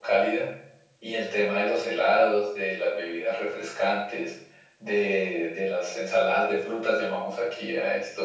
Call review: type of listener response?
listening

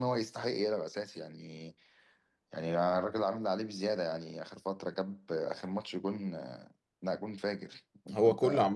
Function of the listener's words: taking over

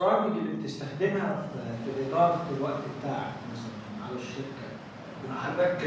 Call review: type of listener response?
taking over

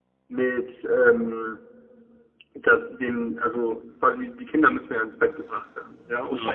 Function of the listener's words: listening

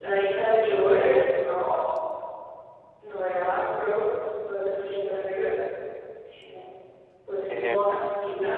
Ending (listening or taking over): listening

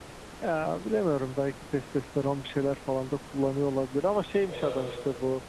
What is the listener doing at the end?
listening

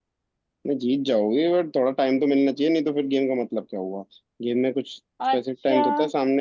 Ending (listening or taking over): listening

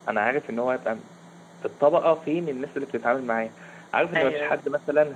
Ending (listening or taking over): listening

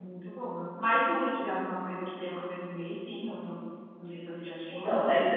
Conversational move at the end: taking over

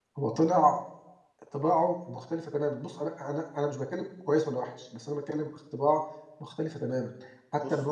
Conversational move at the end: taking over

